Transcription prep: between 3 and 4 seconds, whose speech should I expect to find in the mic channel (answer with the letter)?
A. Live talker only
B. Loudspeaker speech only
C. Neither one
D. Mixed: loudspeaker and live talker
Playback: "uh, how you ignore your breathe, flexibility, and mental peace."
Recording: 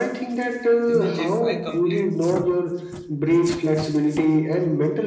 B